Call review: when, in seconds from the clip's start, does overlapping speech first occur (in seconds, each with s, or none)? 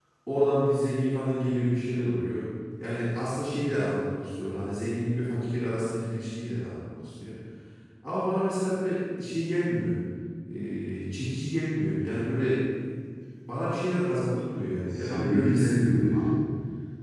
14.9 s